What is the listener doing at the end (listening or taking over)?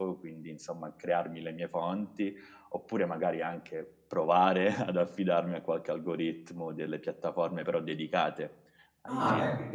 taking over